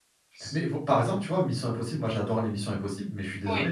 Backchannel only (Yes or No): Yes